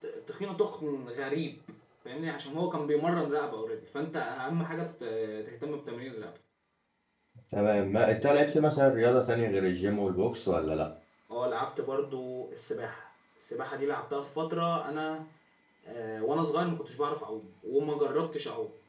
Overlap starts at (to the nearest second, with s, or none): none